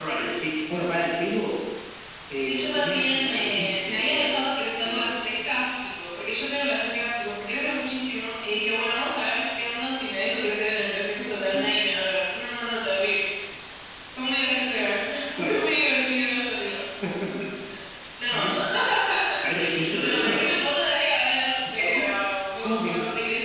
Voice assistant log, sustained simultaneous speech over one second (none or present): present